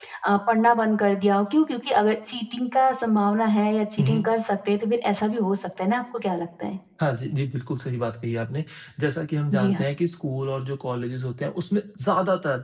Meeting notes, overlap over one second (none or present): none